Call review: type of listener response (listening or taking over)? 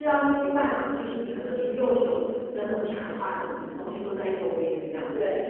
listening